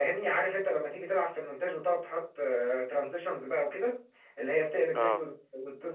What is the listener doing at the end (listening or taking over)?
listening